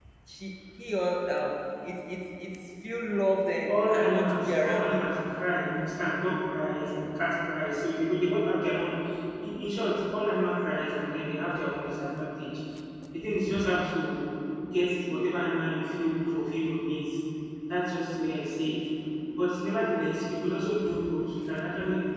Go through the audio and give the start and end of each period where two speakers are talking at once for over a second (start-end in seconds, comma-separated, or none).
3.7-5.1